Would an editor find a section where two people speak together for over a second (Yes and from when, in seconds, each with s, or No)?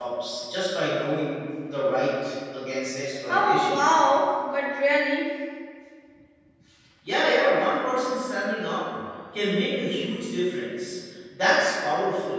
No